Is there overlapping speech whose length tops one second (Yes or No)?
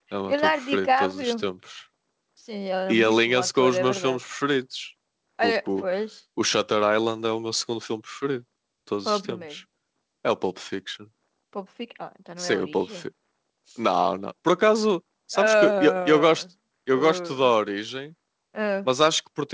Yes